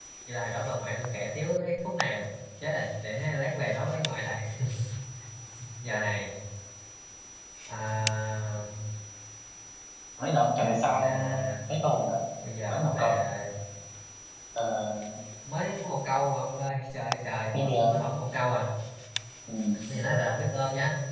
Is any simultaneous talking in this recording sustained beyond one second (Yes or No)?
No